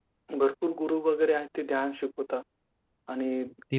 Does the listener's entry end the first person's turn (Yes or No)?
No